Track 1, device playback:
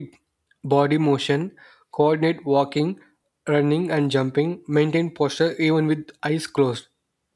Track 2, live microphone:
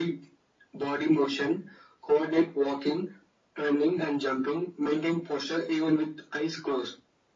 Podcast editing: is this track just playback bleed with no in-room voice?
Yes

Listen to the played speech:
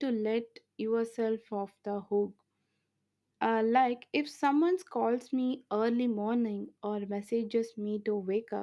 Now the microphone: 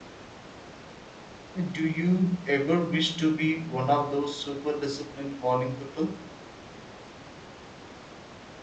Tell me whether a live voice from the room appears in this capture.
Yes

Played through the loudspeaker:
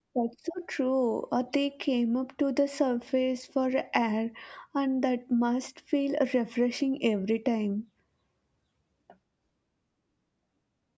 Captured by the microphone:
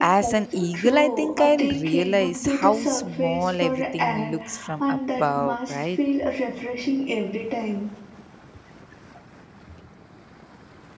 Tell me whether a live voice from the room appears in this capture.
Yes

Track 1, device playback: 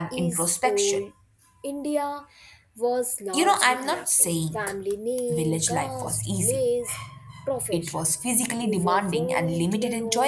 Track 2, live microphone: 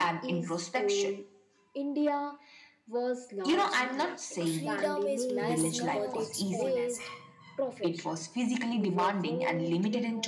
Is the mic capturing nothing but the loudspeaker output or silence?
No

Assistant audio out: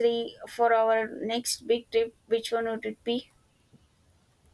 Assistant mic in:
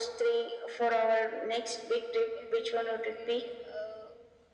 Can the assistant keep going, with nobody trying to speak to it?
No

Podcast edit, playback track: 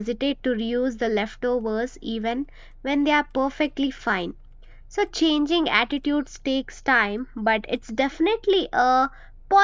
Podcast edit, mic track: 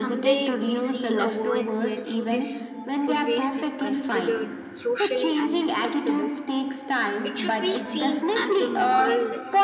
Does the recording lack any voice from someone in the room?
No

